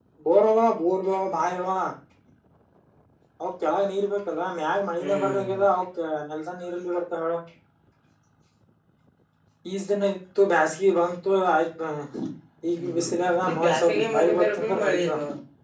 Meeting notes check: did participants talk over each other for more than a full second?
Yes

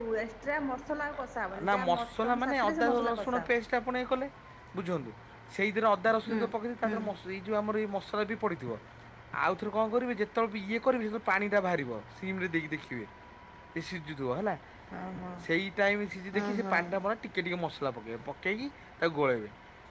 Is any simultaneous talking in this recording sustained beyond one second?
Yes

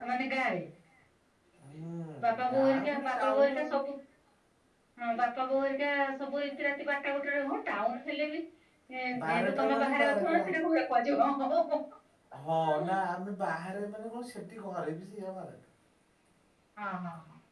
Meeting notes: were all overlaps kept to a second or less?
No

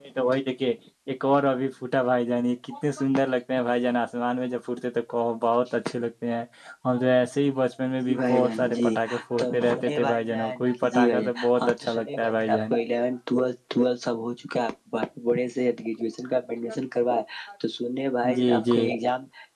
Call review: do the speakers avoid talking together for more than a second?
No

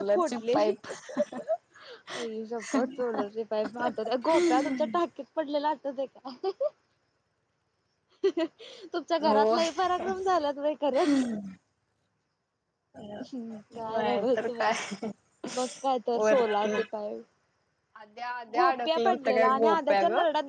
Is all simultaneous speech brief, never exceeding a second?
No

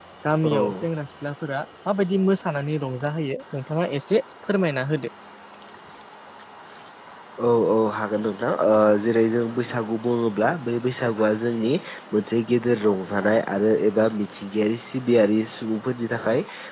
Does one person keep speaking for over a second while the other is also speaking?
No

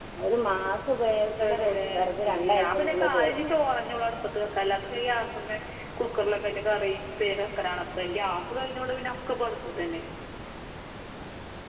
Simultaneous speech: Yes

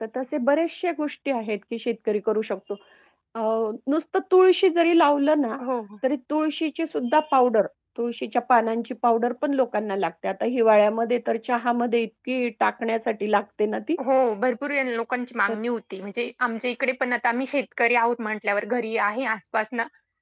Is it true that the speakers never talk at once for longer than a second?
Yes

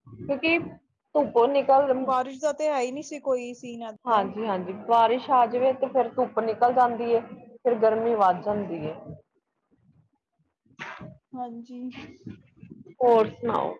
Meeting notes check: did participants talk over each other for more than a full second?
No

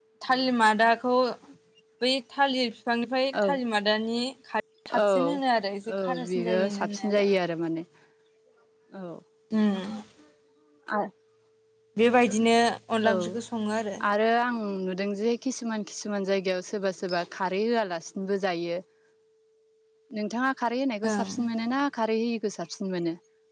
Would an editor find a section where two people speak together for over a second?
Yes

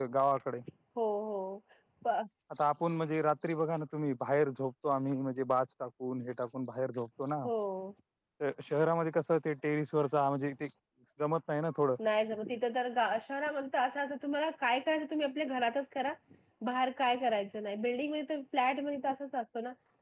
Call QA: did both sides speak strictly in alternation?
Yes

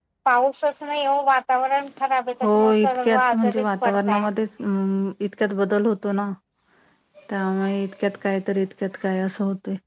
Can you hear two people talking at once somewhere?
Yes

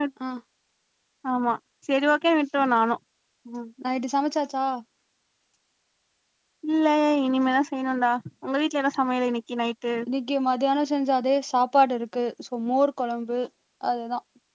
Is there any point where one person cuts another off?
No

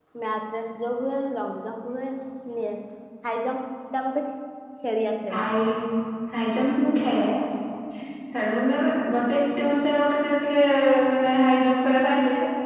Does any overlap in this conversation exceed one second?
No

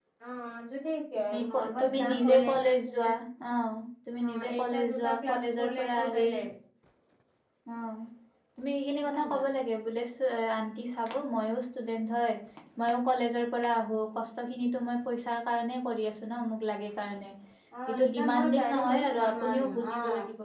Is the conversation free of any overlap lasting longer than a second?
No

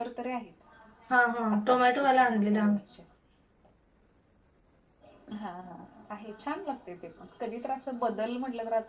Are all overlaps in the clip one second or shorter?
No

